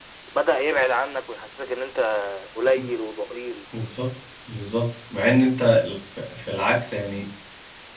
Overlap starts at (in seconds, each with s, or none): none